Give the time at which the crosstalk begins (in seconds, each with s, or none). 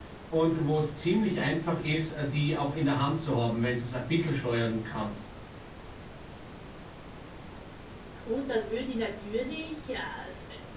none